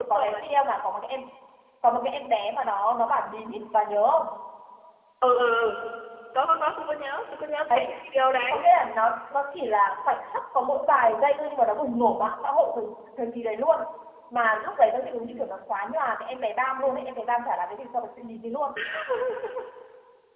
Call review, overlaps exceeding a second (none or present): none